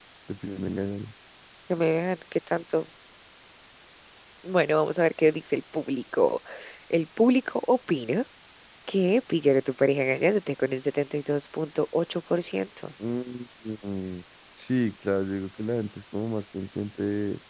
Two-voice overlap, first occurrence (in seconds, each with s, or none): none